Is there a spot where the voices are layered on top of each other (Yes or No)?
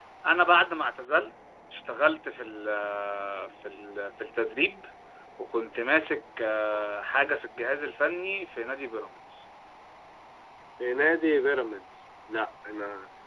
No